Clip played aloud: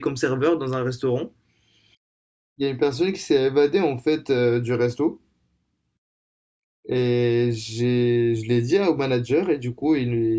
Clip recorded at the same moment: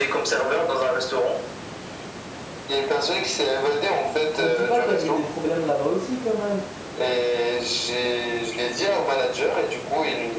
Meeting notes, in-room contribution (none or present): present